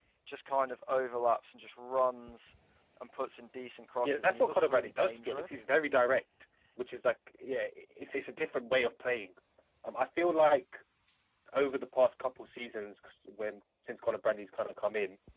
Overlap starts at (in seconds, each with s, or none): 4.0 s